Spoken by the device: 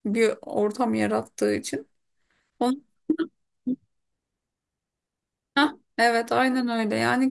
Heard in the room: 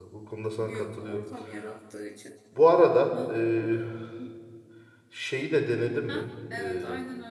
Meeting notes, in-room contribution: present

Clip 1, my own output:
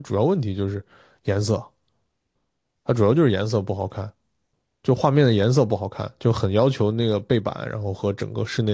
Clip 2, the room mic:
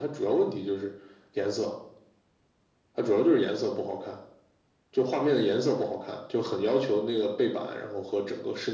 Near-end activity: none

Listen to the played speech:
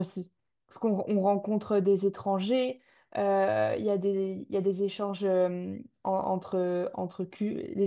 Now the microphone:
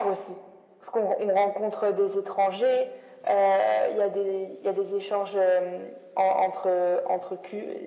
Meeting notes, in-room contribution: none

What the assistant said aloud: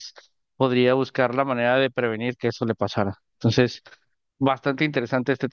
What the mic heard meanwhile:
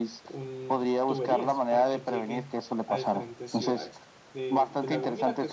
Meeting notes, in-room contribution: present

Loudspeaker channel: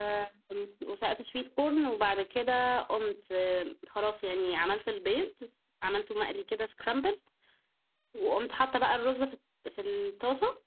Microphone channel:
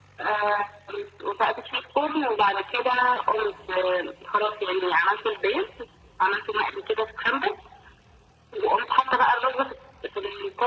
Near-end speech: none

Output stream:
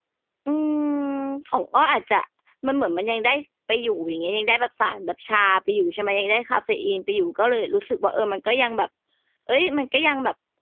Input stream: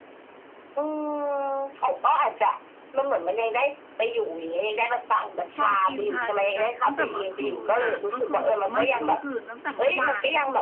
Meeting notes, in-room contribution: present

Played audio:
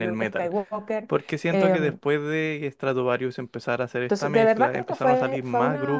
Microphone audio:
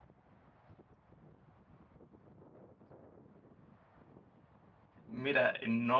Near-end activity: present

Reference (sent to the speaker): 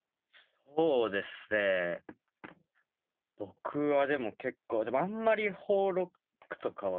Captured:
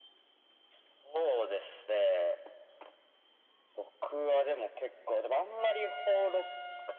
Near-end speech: none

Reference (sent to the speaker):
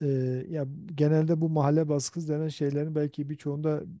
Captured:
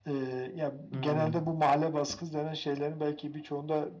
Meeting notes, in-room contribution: present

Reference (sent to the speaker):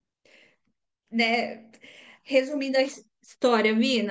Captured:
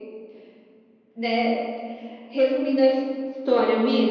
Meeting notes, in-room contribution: none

